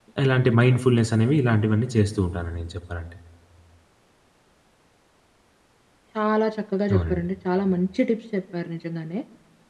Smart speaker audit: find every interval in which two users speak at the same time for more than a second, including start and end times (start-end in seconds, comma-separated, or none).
none